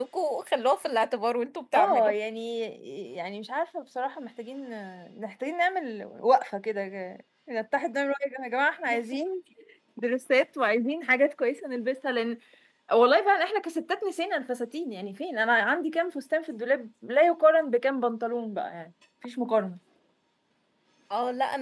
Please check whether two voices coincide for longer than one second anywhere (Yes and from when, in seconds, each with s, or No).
No